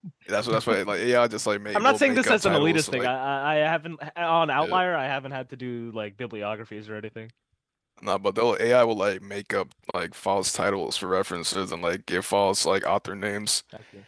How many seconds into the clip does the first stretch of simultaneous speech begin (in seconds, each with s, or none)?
1.7 s